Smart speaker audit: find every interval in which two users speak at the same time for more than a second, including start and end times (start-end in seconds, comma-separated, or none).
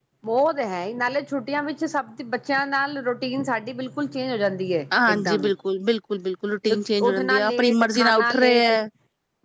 6.7-8.7